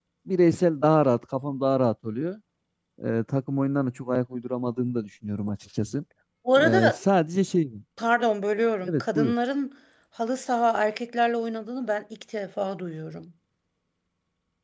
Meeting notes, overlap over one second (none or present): none